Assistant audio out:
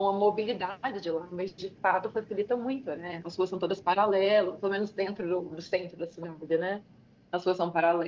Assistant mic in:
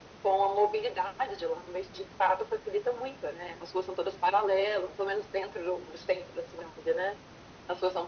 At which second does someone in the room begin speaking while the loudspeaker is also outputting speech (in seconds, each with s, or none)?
none